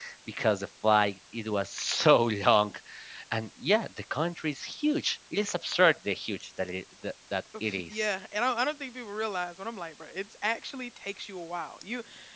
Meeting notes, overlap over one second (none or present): none